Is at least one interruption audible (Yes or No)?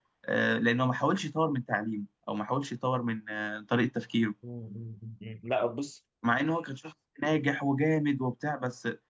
No